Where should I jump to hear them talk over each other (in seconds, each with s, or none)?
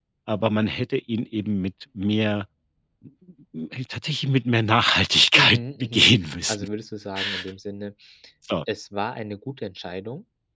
5.3 s